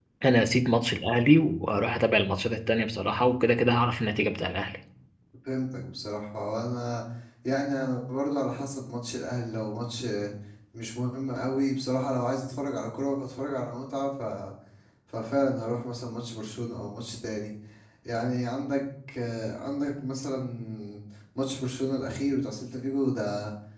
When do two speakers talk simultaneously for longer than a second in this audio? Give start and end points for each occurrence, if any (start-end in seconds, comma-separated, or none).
none